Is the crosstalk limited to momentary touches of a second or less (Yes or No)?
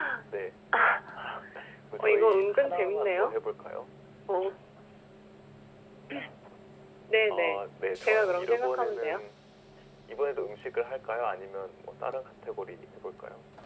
No